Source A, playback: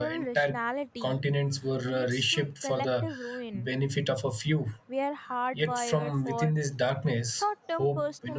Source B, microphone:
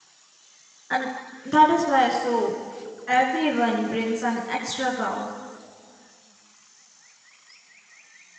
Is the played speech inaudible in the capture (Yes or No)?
Yes